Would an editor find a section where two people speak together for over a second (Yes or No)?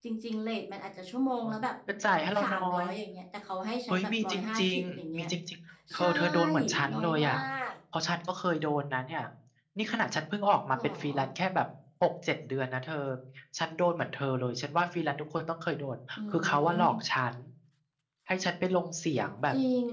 Yes